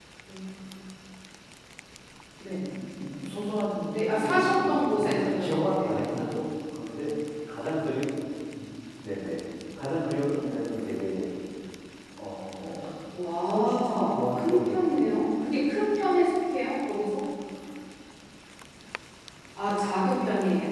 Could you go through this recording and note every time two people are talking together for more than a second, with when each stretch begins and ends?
3.9-6.0, 13.4-15.1

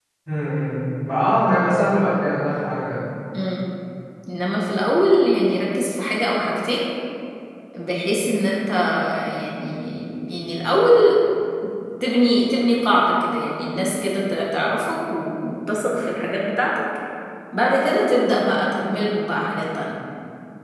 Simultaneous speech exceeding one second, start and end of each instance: none

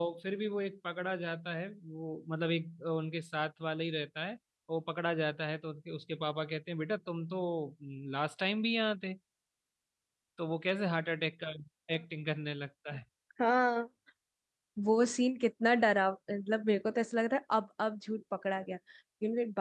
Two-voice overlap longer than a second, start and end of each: none

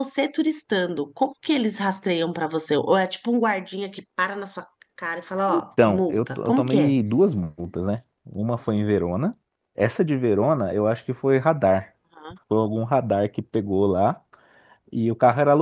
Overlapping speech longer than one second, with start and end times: 5.5-7.0

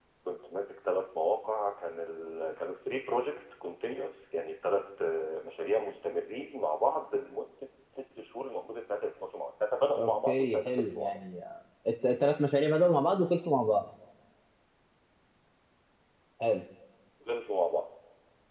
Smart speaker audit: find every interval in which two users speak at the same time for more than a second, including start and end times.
10.0-11.2

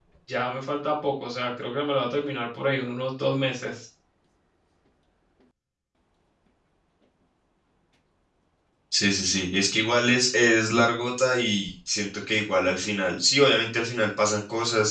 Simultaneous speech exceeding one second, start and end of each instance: none

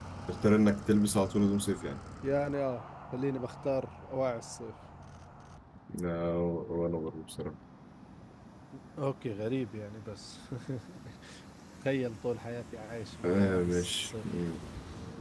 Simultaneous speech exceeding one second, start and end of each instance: 13.2-14.4

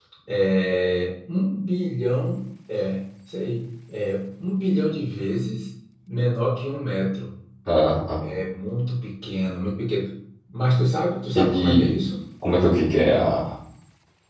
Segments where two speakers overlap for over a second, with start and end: none

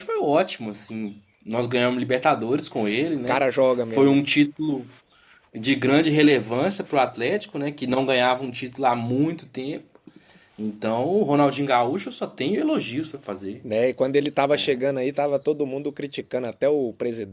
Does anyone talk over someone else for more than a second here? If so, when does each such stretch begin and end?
none

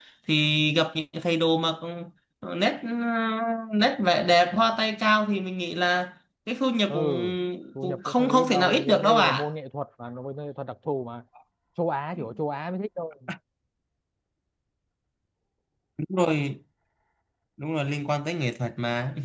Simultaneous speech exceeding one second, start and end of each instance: 7.8-9.5

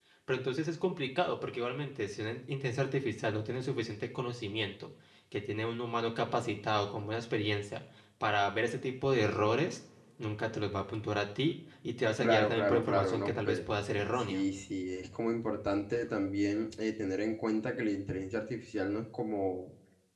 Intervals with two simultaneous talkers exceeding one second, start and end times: 12.2-13.6

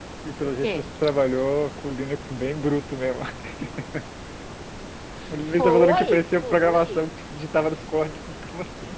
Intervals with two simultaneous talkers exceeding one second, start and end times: 5.5-7.1

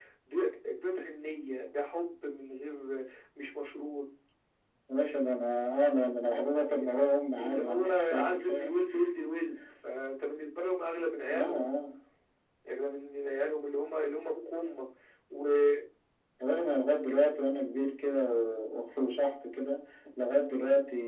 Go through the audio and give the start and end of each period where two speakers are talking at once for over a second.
7.4-8.7

